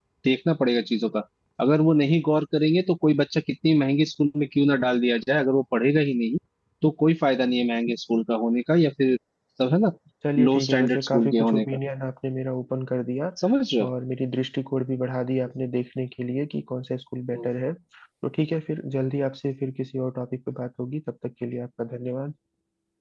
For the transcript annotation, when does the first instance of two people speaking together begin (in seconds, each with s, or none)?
10.4 s